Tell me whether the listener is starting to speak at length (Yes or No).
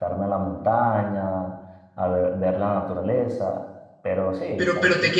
Yes